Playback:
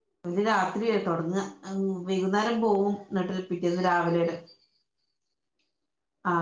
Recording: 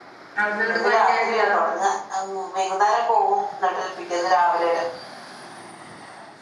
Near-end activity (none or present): present